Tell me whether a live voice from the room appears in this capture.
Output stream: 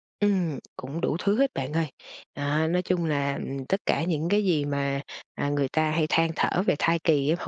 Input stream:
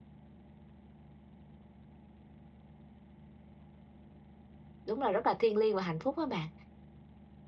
Yes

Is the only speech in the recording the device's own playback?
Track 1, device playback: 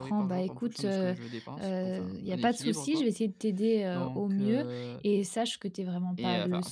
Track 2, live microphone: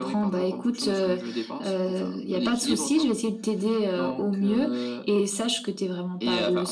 Yes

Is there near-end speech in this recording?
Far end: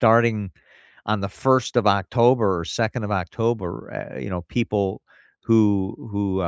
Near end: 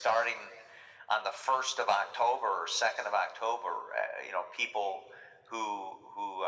No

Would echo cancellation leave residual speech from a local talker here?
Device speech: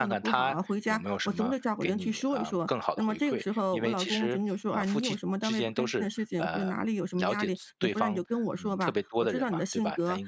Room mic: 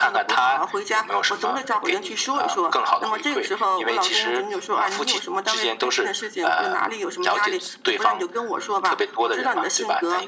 No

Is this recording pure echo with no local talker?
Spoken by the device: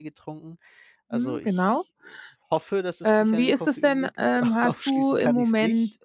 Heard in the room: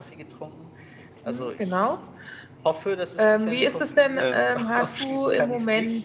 No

